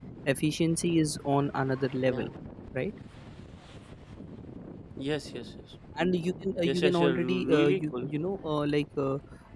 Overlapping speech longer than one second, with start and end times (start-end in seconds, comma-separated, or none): 6.6-8.1